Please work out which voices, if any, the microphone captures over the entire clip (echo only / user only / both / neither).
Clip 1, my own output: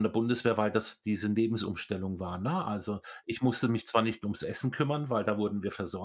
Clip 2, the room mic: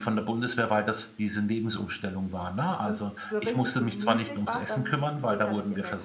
both